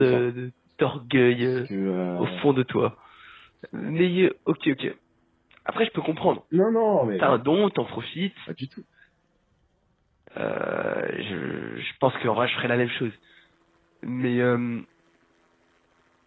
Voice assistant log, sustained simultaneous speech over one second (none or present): none